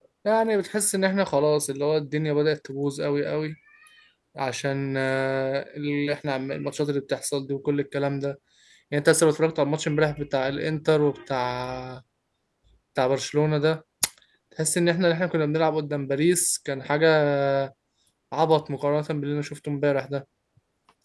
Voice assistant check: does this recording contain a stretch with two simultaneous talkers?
No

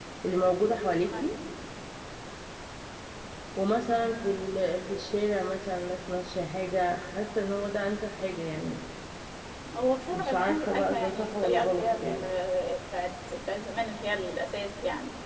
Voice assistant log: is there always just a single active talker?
No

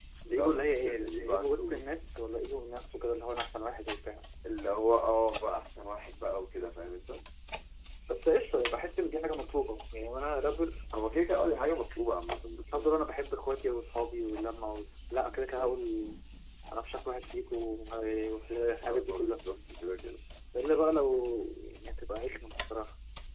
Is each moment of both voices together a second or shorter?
No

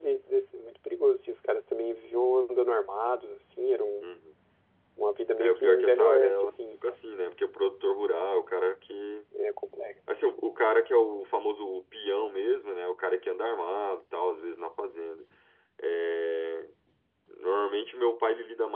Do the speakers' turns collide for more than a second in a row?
Yes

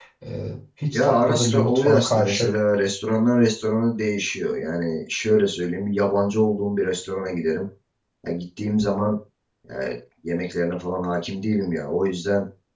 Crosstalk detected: Yes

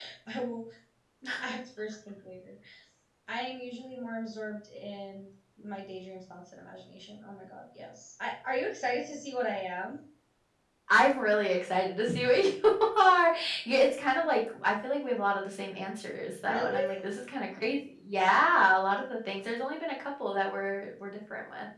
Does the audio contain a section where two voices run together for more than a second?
No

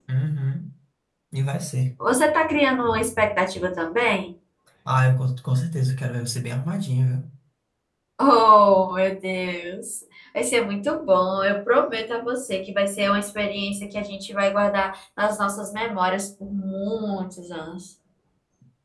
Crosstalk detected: No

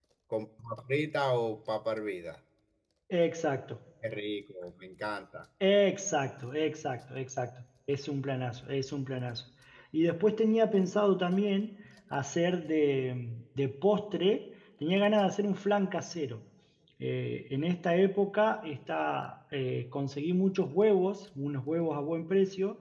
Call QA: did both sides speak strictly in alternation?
Yes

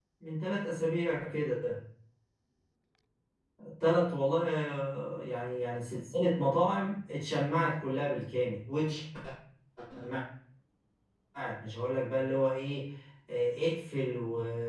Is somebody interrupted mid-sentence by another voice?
No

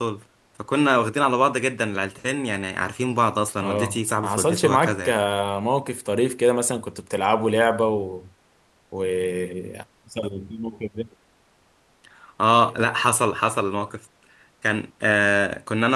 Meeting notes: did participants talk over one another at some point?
Yes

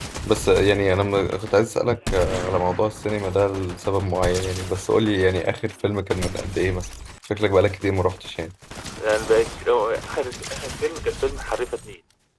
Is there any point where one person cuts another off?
No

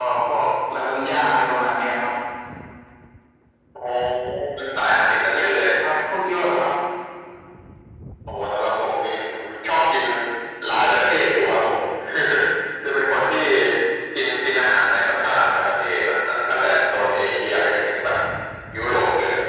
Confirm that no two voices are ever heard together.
Yes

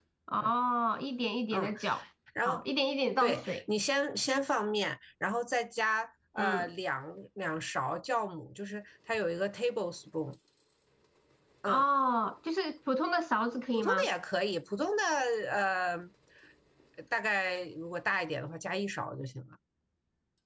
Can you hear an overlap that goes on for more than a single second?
No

